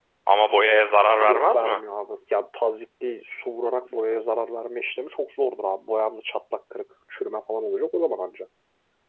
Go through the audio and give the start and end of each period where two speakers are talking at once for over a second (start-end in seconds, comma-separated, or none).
none